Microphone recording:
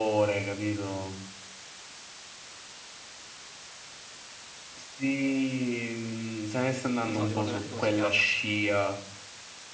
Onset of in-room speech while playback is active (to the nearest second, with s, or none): 7 s